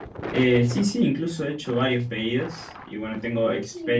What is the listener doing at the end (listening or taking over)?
taking over